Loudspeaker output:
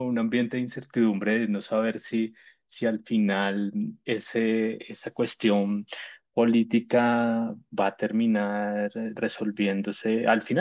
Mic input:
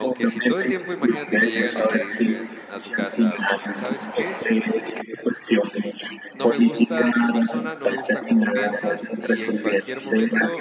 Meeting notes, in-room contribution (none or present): present